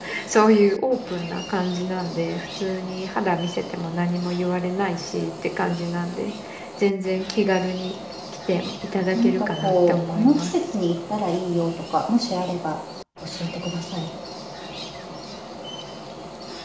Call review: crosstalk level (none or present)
present